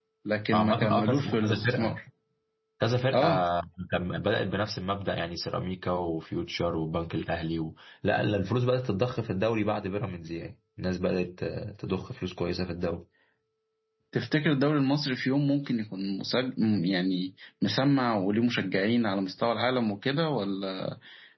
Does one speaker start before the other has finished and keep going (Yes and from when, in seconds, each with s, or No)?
Yes, from 0.5 s